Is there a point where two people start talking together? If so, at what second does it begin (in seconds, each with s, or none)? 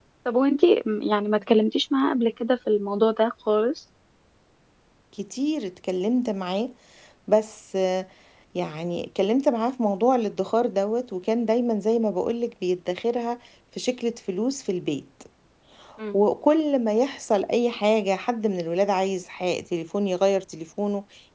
none